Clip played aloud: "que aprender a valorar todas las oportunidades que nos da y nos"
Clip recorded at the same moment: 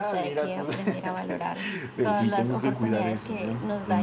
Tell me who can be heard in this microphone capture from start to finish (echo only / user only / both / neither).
both